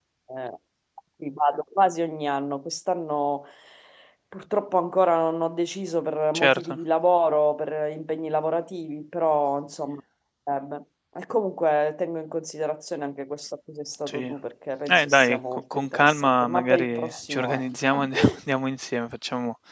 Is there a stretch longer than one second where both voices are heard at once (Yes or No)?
Yes